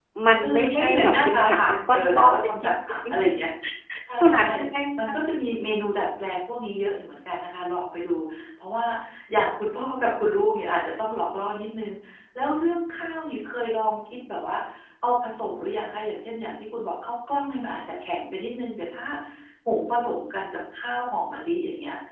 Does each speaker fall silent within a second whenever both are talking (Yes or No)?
No